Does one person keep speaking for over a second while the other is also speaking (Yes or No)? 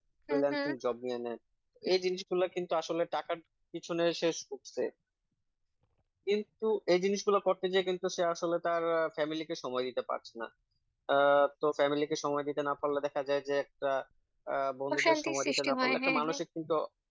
Yes